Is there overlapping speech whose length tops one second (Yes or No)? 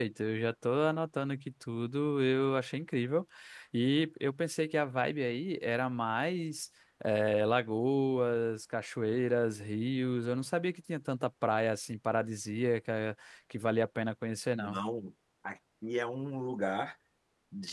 No